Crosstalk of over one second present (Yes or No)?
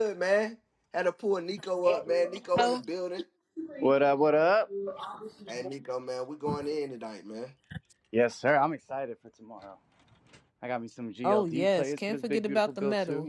Yes